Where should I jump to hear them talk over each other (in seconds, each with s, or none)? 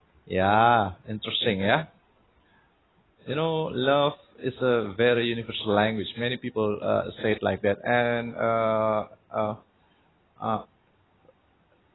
none